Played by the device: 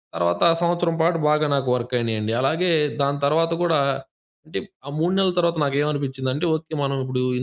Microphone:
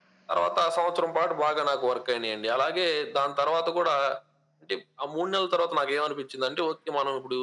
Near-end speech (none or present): none